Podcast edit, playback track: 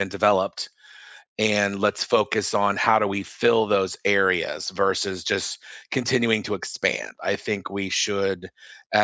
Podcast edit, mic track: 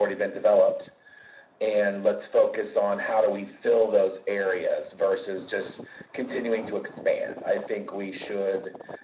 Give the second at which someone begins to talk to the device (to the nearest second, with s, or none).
none